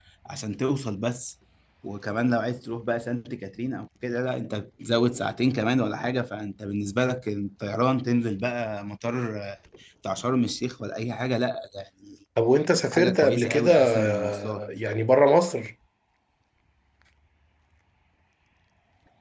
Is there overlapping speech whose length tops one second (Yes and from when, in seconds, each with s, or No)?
Yes, from 12.9 s